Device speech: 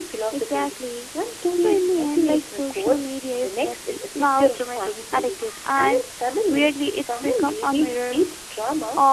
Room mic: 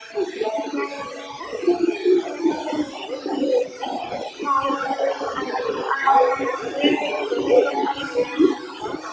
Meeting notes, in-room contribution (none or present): none